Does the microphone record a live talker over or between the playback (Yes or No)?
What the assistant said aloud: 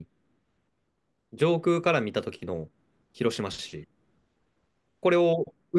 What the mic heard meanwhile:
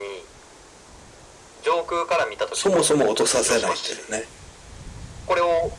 Yes